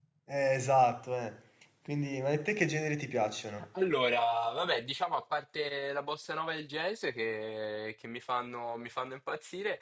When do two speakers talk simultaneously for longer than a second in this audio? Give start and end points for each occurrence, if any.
none

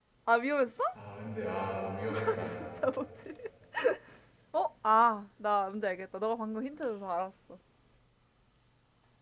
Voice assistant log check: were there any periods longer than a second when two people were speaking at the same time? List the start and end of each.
none

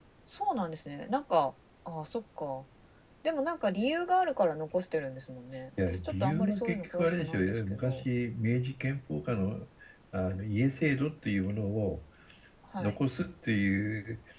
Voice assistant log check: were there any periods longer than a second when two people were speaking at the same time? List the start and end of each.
5.8-8.0

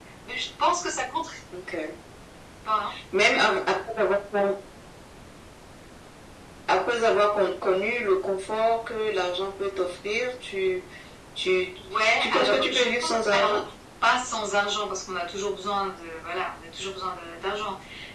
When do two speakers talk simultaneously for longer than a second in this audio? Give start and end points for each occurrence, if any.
12.2-13.6

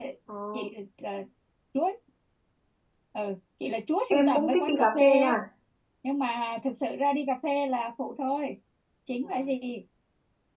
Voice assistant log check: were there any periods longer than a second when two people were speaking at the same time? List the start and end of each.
4.1-5.4

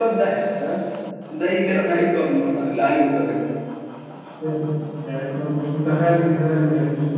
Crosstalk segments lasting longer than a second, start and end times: none

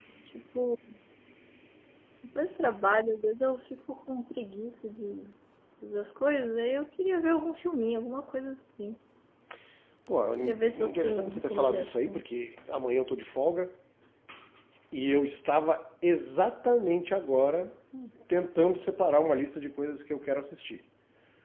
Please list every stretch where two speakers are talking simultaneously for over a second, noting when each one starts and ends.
10.4-12.2

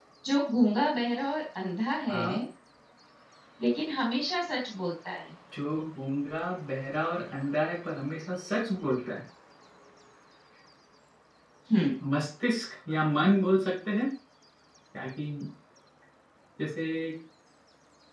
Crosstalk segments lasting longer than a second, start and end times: none

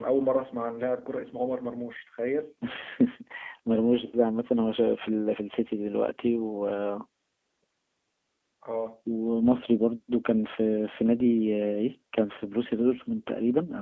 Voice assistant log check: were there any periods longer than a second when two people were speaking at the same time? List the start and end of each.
none

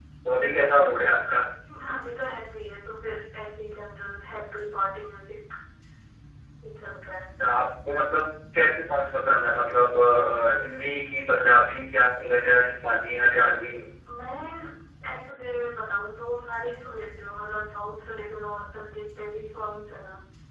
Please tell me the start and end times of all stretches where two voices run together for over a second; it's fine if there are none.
none

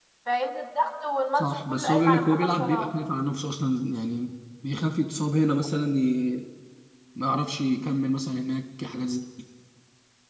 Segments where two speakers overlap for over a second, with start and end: 1.4-2.9

